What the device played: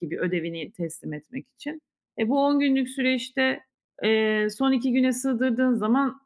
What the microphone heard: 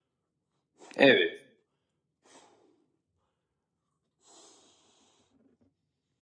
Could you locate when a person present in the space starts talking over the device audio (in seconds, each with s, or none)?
1.0 s